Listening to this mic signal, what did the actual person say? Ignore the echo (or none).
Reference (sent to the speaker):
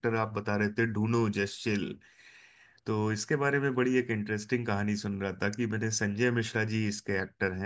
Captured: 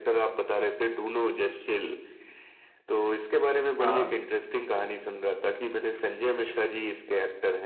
हाँ